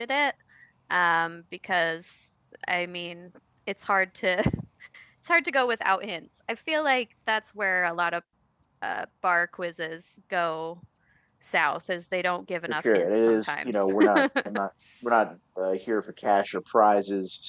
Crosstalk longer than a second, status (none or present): present